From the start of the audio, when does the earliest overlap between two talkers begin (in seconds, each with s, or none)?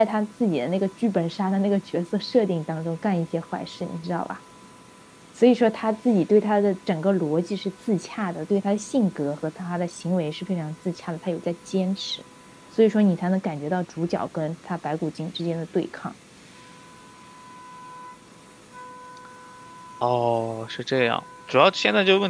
none